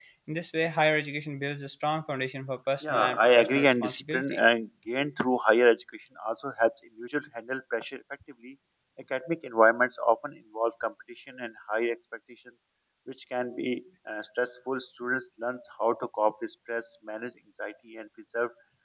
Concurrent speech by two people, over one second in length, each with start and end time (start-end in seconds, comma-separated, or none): 2.8-4.4